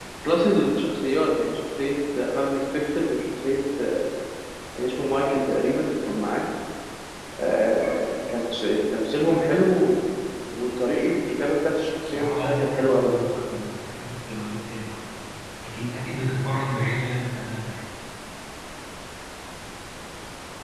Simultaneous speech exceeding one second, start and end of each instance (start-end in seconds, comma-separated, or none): 12.1-13.4